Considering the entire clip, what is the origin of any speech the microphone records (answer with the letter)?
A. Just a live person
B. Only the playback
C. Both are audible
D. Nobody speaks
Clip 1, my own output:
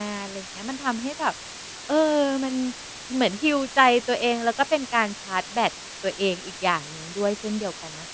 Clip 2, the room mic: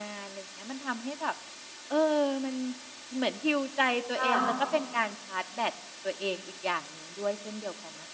C